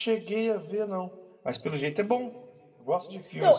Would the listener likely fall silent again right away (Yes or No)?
No